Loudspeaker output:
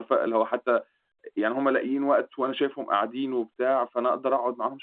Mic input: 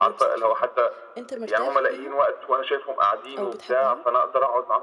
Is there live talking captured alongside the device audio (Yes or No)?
Yes